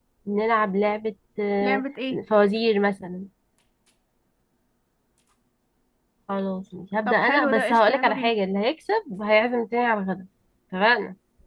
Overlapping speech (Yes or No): Yes